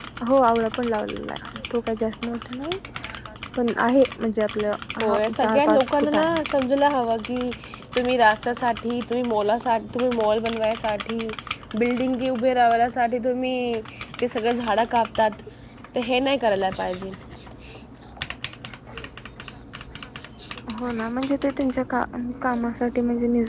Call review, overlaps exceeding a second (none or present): present